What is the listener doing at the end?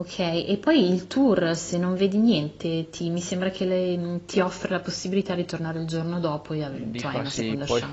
taking over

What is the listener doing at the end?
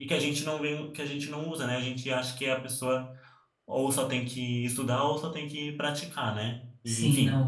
taking over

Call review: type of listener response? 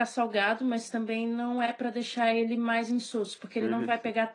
listening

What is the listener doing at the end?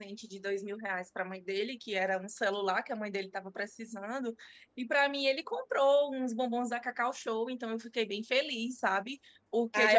taking over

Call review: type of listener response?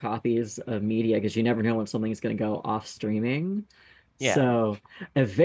listening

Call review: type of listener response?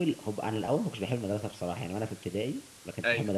listening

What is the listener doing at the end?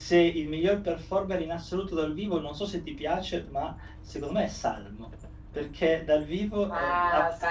taking over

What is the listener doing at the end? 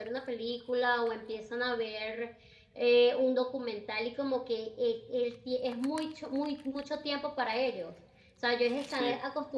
listening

